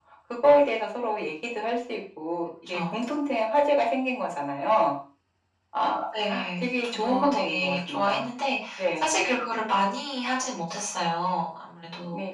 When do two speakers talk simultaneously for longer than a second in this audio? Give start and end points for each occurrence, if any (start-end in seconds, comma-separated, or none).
6.6-8.3